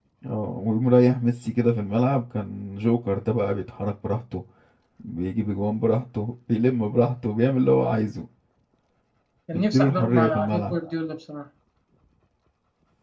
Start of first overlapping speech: 9.5 s

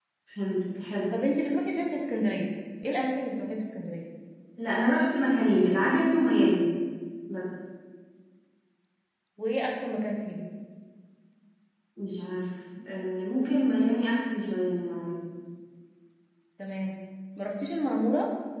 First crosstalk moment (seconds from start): none

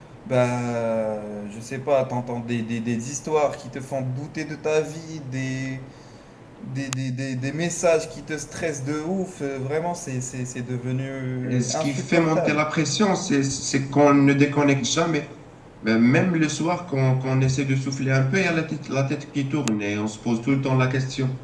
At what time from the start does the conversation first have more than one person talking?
11.4 s

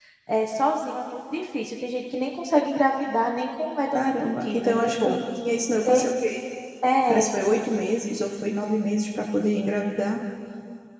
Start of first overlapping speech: 3.9 s

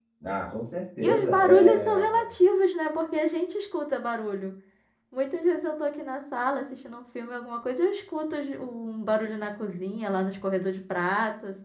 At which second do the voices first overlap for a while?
1.0 s

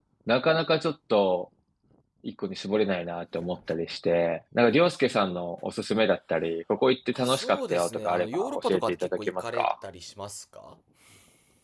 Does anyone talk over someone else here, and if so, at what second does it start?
7.2 s

